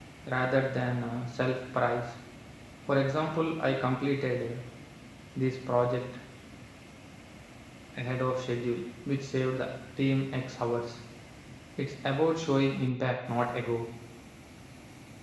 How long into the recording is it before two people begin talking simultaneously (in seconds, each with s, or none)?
none